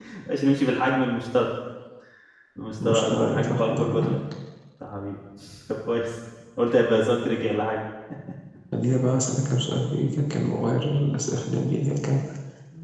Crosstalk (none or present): present